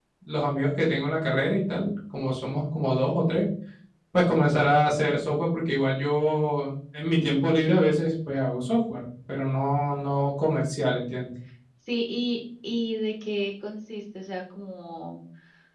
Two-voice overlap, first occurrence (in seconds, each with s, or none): none